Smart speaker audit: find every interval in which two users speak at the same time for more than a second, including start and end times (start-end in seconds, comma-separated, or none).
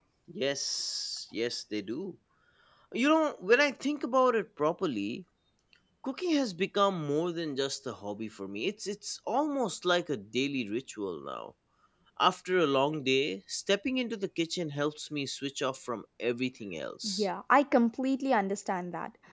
none